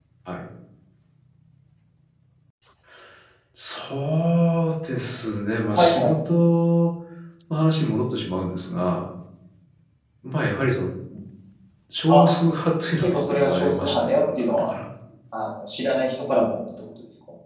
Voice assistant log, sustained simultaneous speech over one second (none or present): present